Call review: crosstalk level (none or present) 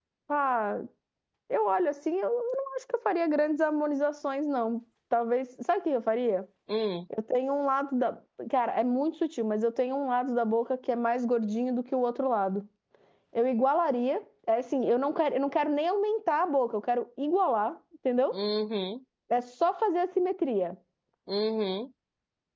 none